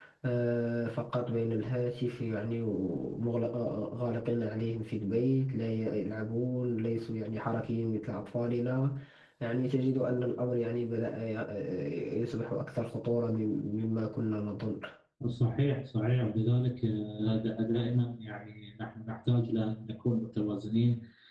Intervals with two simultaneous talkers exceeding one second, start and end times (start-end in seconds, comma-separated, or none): none